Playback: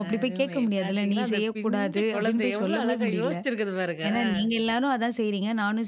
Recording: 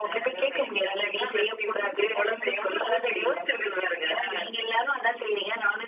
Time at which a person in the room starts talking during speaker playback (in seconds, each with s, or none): none